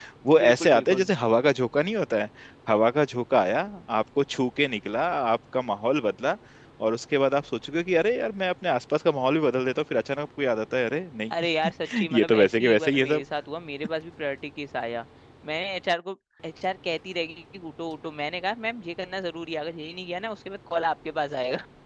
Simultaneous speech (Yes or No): Yes